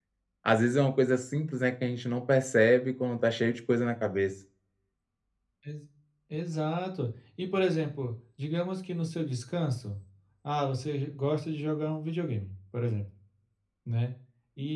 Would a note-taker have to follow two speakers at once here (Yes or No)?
No